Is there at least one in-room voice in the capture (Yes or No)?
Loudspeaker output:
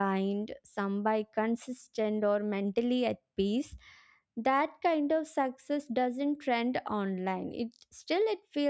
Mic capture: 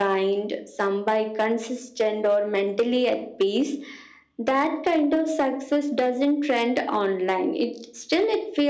No